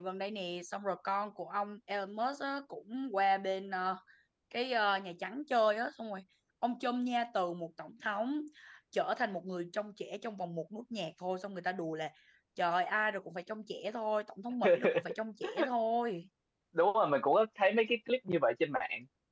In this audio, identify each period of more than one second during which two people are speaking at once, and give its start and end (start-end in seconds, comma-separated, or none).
none